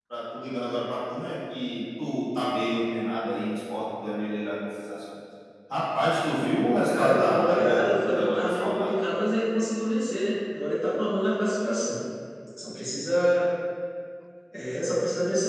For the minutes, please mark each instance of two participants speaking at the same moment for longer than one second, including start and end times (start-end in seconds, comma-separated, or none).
6.9-9.0